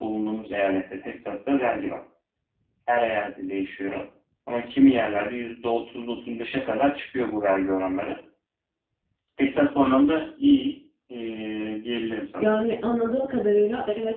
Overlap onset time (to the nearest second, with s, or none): none